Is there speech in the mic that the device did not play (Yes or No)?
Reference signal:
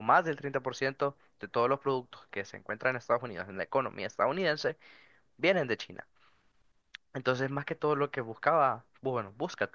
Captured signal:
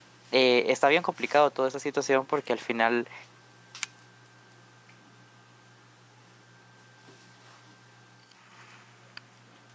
Yes